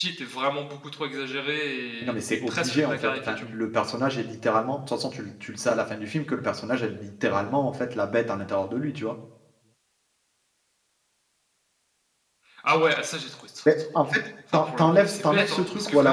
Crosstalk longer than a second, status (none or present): present